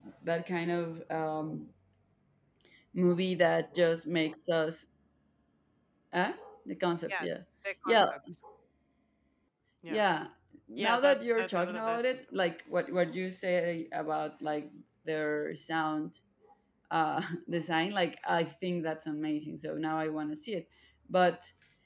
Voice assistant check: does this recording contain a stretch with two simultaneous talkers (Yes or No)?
Yes